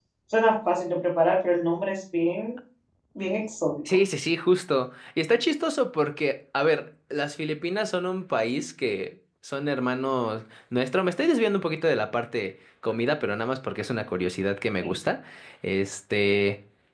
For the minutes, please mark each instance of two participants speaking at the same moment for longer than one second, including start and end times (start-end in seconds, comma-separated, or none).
none